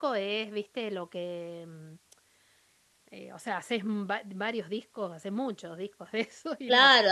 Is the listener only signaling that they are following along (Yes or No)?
No